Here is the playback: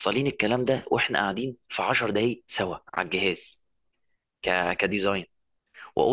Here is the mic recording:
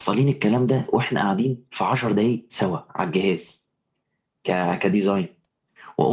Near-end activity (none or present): none